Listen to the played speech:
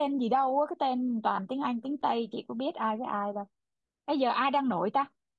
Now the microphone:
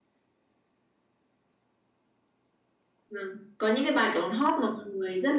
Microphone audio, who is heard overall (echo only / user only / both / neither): user only